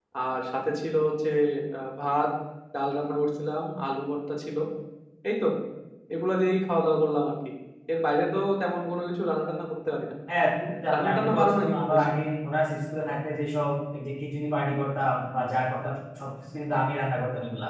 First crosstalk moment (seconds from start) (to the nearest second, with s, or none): 11 s